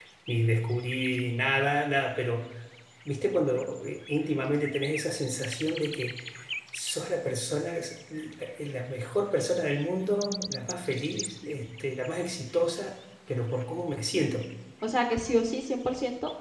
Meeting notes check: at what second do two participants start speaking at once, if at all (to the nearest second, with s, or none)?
none